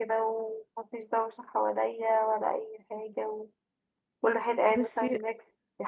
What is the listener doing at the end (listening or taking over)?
listening